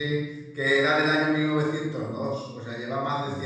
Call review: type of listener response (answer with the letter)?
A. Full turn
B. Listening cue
B